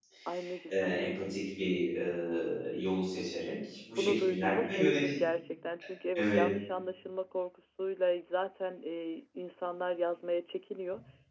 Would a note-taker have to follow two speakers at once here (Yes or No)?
Yes